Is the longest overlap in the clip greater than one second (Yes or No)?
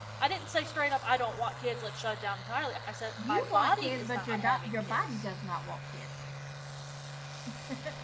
Yes